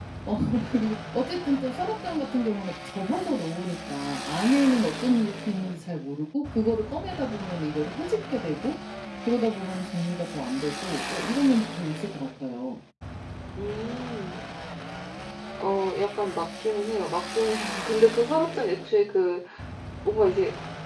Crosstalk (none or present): none